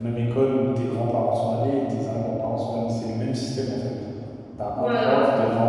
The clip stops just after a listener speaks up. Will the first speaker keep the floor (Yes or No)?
Yes